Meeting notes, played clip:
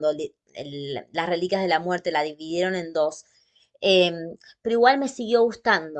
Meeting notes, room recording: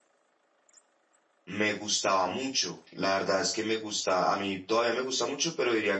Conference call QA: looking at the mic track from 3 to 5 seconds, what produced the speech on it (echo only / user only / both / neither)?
user only